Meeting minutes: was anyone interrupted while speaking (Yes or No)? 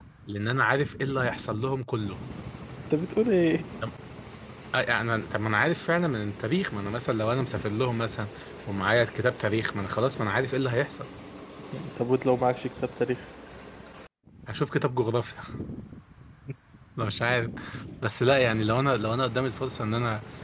No